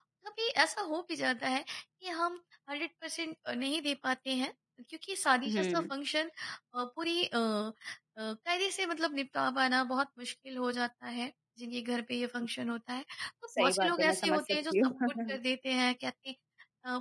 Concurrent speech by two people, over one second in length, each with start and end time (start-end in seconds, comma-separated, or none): 13.6-15.4